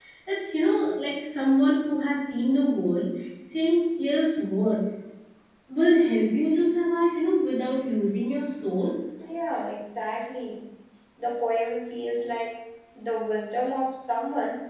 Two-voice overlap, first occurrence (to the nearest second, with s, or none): none